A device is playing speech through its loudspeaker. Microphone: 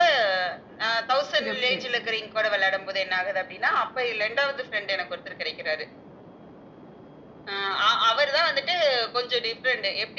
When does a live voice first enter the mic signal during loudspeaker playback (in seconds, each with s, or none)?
1.4 s